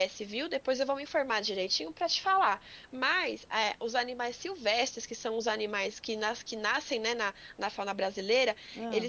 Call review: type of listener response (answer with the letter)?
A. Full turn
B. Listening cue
B